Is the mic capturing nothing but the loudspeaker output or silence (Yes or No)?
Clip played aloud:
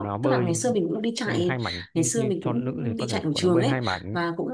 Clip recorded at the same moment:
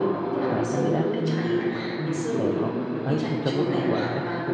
No